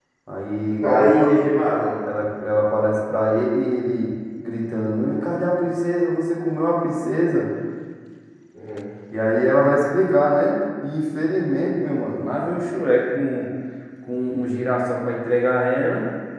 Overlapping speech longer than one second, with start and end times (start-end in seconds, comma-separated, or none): none